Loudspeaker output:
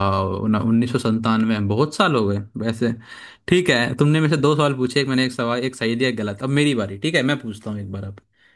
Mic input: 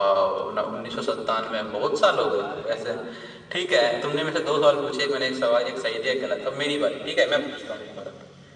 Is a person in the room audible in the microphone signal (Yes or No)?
Yes